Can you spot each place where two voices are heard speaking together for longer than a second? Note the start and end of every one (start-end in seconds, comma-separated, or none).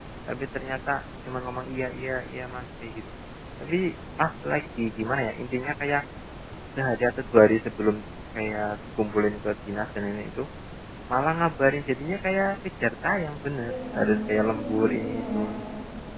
13.6-15.4